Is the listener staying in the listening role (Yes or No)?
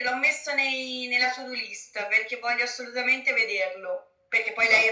Yes